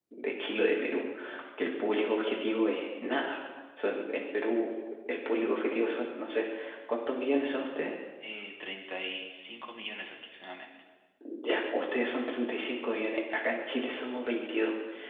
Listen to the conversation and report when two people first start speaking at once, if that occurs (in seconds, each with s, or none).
none